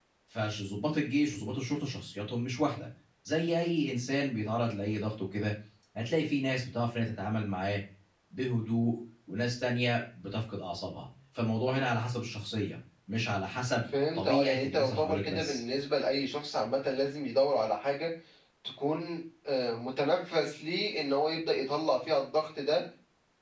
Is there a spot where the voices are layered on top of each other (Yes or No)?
Yes